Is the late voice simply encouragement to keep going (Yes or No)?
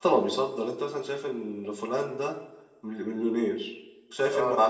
Yes